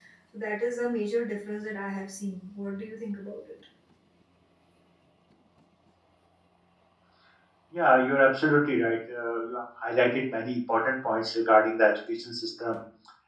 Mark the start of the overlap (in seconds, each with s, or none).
none